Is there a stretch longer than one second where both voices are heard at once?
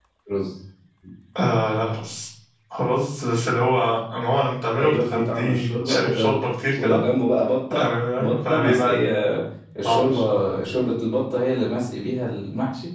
Yes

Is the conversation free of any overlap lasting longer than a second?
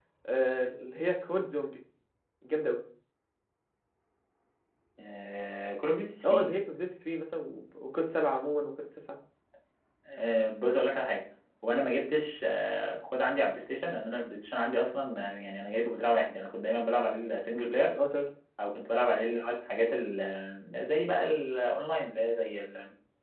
Yes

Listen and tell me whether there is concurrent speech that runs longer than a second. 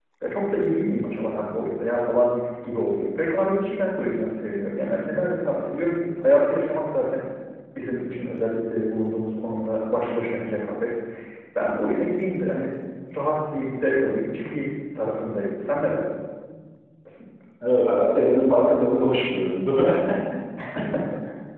No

